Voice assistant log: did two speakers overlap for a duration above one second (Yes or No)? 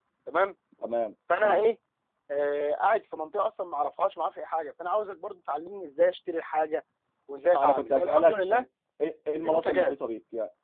Yes